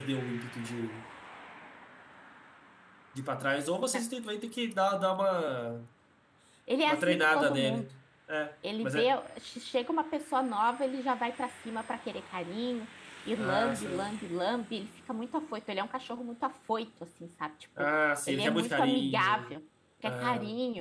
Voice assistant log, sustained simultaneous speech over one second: present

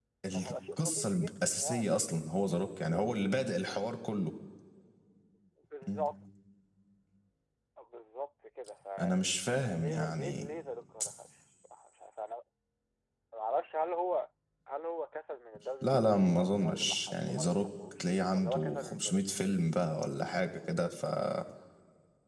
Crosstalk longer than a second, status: present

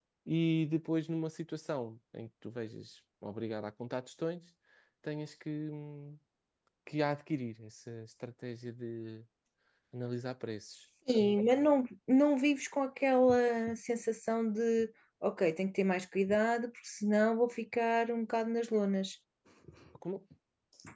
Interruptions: none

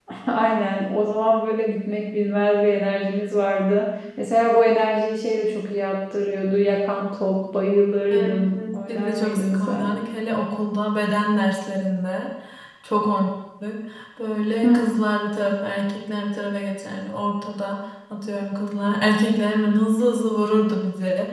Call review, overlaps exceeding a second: present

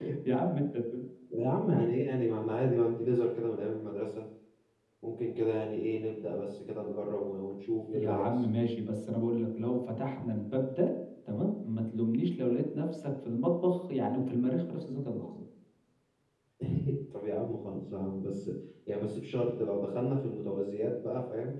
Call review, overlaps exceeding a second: none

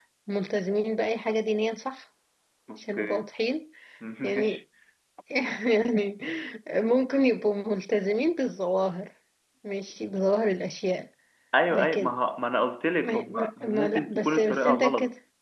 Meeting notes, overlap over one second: present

